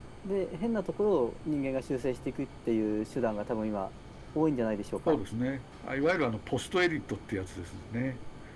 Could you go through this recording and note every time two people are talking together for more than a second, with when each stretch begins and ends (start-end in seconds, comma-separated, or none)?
none